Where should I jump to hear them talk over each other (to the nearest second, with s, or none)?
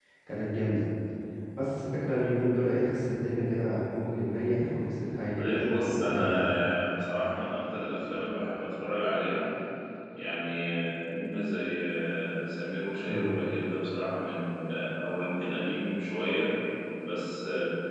5 s